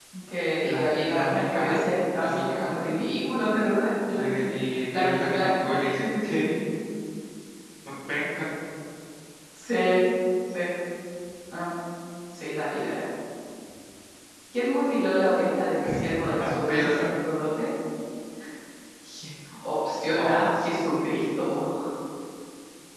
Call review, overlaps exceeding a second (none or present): present